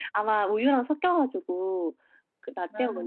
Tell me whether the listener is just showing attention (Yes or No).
Yes